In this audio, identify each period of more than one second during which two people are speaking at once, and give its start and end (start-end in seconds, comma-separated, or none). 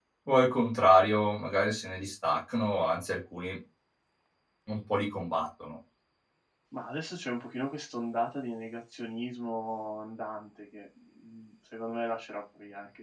none